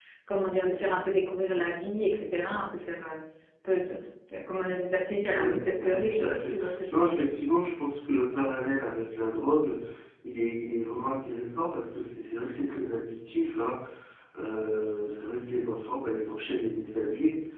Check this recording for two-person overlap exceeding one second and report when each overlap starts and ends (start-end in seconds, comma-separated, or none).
5.3-6.5